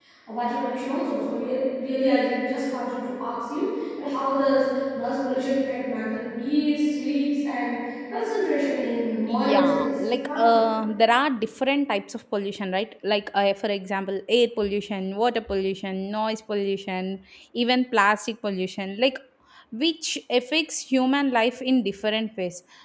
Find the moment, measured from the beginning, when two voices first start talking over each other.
9.2 s

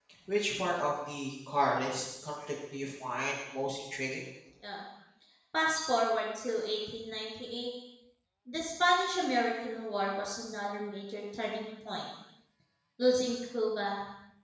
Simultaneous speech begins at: none

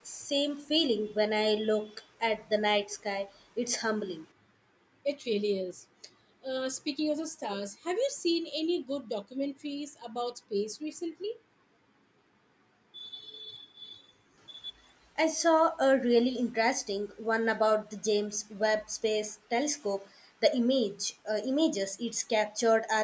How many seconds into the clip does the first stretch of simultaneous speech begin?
none

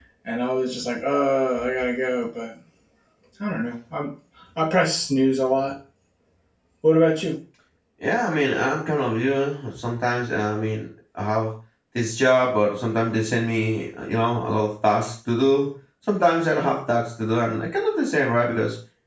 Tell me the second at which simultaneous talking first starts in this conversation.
none

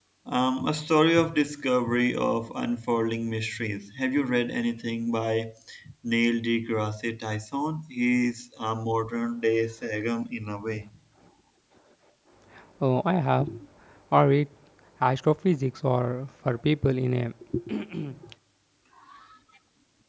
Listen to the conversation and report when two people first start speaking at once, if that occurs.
none

